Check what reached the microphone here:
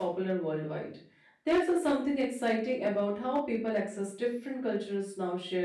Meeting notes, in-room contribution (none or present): present